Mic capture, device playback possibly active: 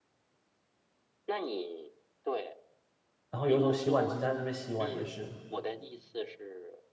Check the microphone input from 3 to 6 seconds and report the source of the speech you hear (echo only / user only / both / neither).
both